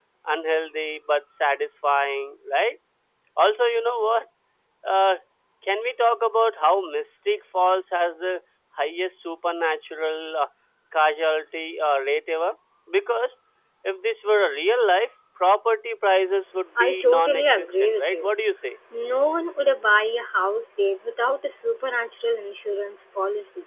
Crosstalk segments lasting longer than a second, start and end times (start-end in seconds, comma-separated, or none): 16.8-18.3